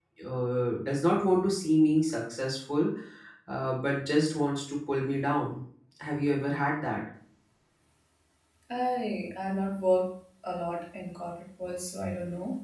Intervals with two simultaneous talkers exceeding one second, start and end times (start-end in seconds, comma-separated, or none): none